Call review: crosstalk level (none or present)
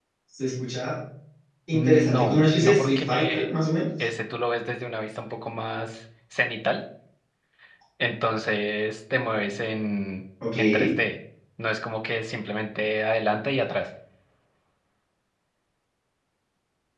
present